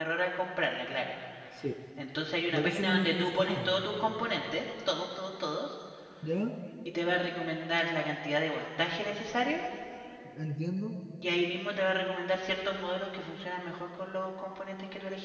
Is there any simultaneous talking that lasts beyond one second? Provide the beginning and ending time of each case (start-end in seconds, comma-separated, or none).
2.5-3.9